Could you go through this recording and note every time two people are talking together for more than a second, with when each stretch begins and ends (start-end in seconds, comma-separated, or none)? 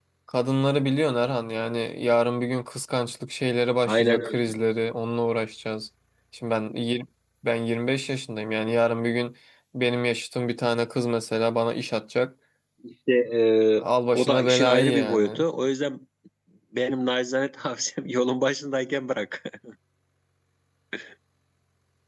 14.2-15.4